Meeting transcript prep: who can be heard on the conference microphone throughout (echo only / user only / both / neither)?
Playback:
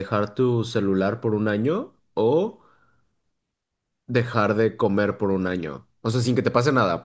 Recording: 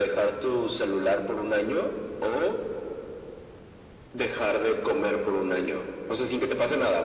echo only